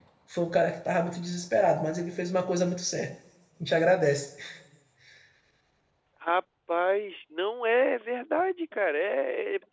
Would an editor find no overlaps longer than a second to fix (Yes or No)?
Yes